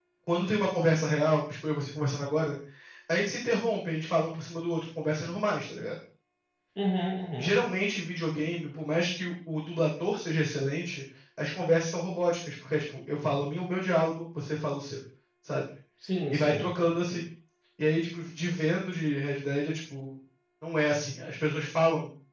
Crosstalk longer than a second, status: none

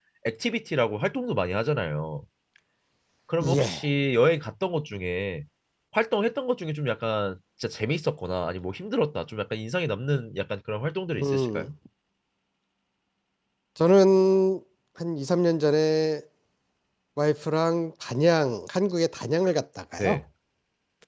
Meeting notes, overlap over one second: none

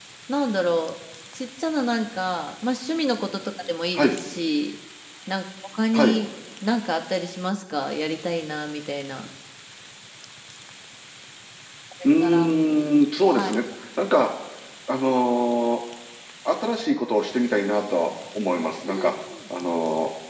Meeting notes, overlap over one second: none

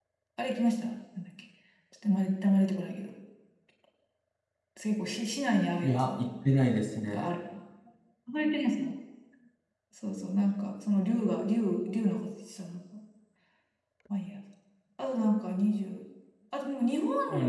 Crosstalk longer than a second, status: none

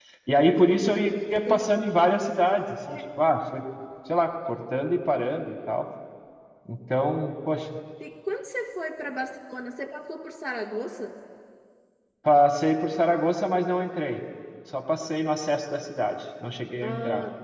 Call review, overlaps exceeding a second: none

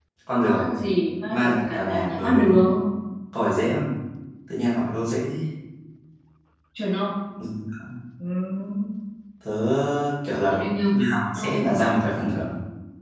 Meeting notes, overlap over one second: present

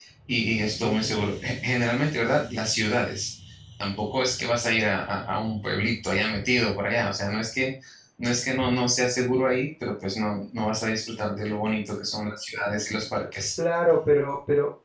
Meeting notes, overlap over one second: none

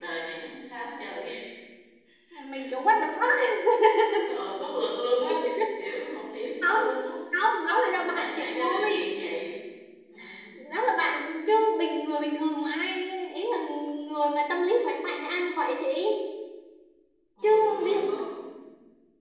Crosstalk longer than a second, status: present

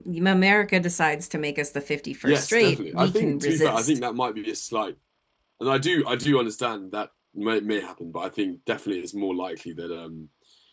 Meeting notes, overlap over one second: present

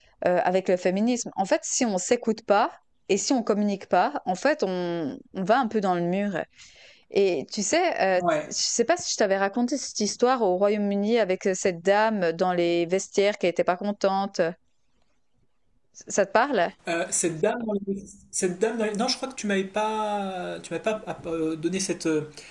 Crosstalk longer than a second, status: none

